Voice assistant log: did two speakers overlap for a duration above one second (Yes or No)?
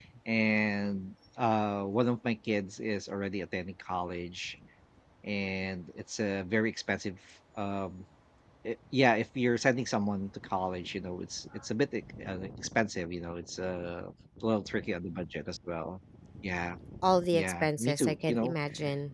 Yes